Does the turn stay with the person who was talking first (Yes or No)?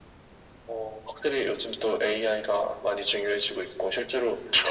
Yes